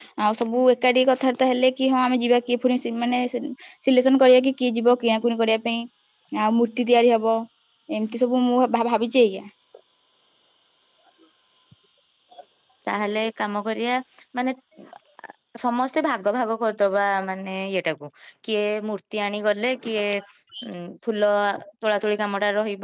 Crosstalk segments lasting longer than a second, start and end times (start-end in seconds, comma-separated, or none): none